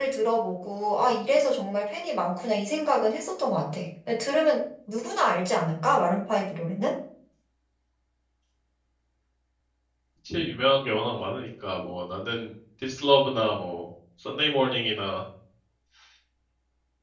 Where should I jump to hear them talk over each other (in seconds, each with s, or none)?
none